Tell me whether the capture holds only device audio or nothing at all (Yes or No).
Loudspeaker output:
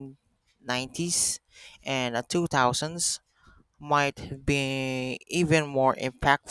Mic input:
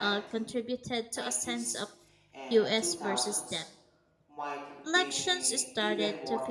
No